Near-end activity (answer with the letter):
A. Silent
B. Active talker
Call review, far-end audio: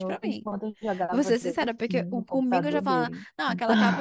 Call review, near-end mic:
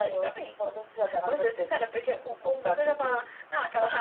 A